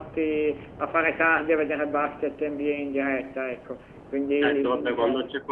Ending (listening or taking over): taking over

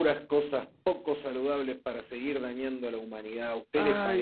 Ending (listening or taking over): taking over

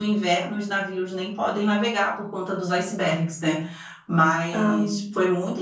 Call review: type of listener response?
listening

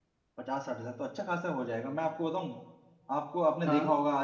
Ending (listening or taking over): listening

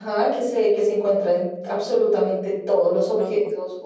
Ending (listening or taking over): listening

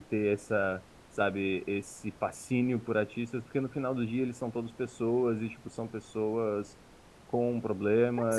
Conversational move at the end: taking over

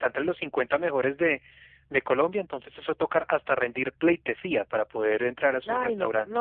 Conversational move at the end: taking over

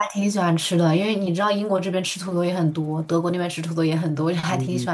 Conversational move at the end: taking over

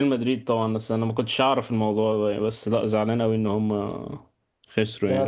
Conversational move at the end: taking over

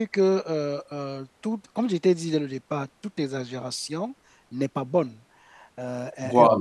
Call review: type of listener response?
listening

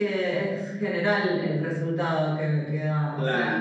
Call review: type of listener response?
taking over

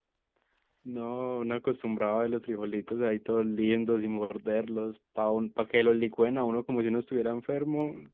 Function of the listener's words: taking over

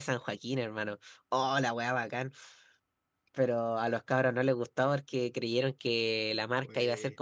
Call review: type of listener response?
listening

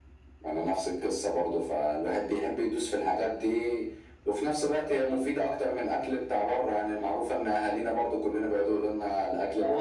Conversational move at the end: taking over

